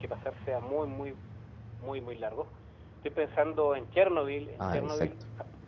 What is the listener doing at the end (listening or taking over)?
listening